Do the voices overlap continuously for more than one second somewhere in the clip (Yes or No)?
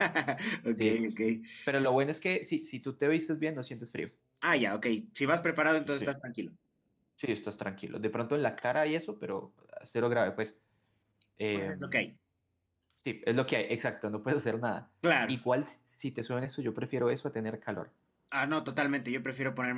No